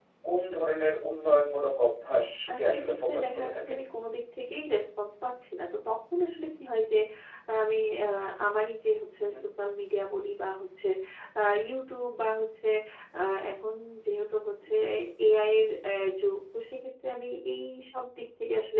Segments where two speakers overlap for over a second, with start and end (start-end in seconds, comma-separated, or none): 2.6-3.8